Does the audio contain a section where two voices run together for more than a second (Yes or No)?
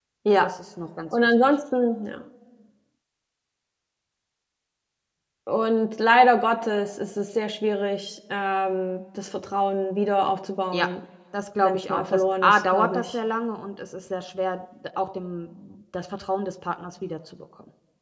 Yes